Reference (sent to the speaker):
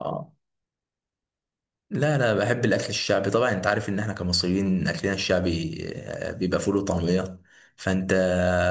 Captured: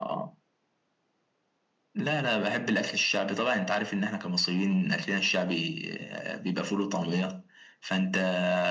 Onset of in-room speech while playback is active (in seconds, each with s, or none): none